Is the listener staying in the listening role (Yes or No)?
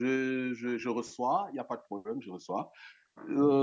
Yes